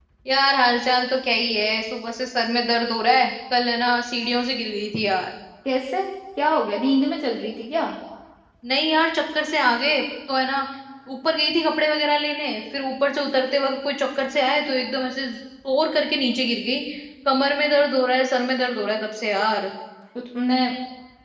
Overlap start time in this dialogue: none

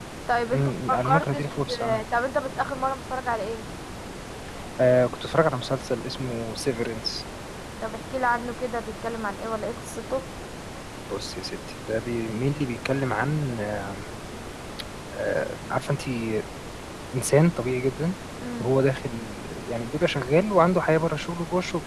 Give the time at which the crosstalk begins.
0.5 s

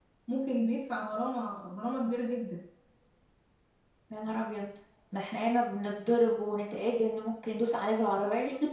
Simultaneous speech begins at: none

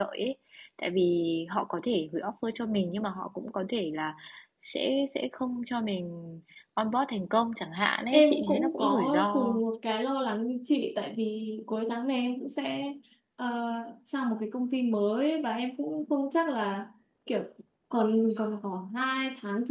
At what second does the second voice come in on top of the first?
8.1 s

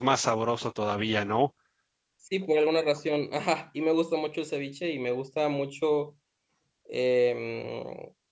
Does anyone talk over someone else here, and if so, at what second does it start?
none

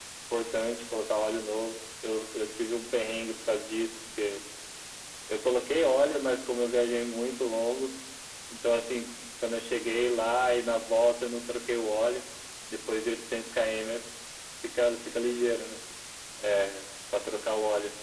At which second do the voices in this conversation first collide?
none

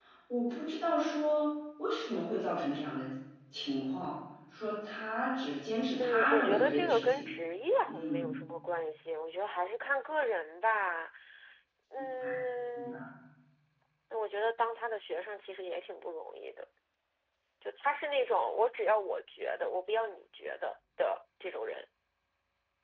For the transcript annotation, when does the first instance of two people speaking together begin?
6.0 s

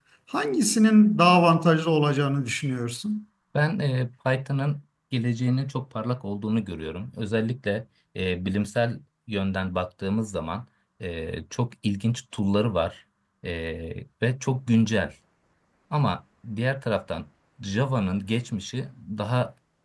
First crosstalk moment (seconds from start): none

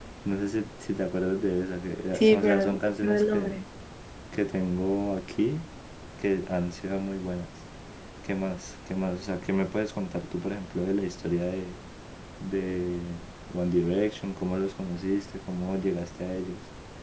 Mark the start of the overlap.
2.1 s

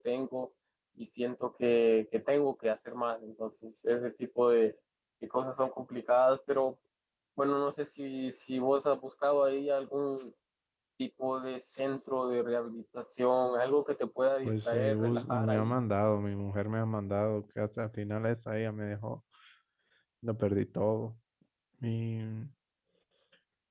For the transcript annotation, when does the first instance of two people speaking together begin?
14.4 s

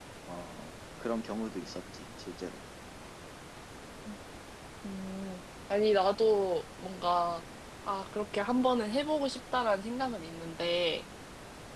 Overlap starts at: none

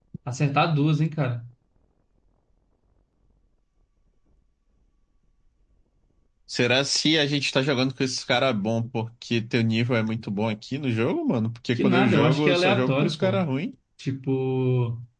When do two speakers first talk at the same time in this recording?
11.8 s

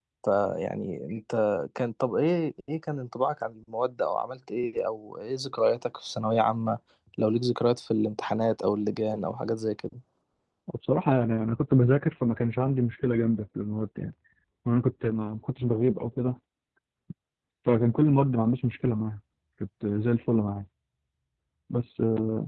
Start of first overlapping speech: none

